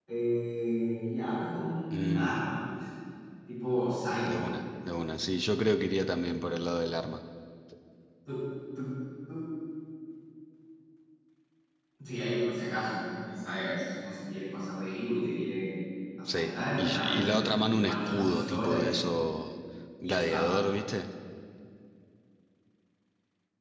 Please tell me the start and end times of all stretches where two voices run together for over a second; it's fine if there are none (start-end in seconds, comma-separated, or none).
16.3-19.0